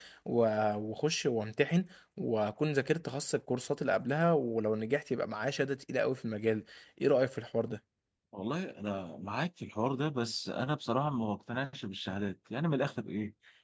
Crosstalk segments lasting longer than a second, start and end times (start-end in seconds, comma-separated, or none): none